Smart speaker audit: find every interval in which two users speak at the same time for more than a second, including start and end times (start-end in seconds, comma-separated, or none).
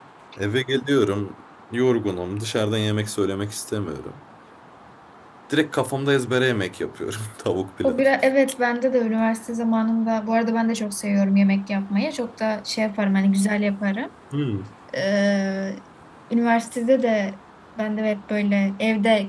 none